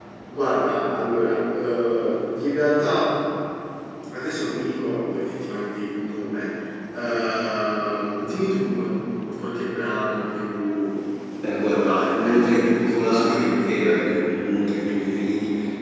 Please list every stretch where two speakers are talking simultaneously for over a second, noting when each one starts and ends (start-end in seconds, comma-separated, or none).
11.6-14.1